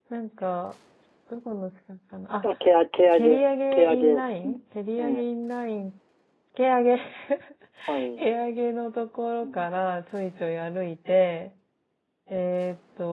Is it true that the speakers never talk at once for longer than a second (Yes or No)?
No